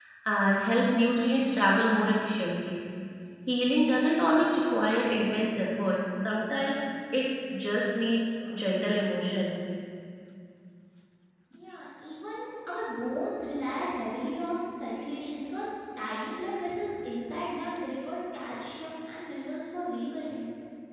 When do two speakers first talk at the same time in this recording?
none

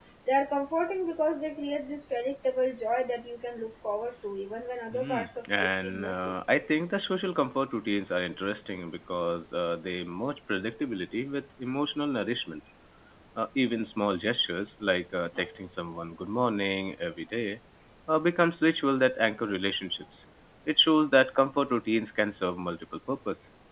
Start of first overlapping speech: 5 s

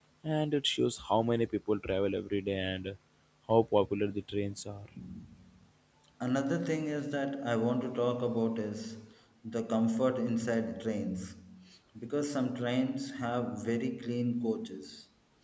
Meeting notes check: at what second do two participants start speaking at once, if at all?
none

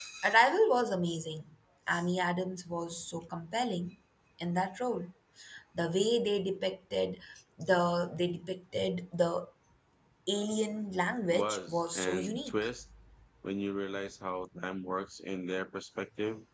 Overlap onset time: 11 s

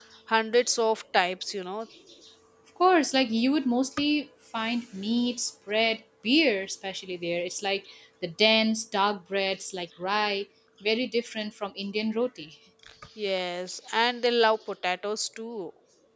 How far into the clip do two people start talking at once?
none

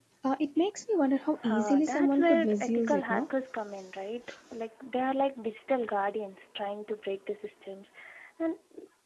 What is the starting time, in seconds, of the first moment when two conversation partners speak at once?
1 s

